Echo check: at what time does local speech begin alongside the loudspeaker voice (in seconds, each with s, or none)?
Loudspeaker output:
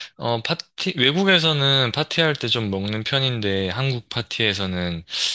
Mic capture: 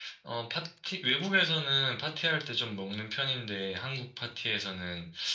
none